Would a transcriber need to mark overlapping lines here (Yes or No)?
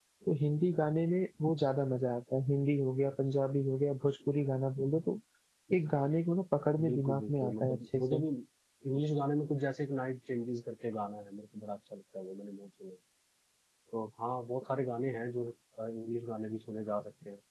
Yes